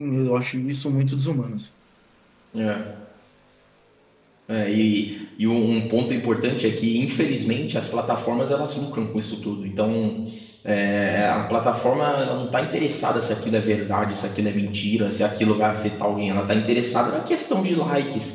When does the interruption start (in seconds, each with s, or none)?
none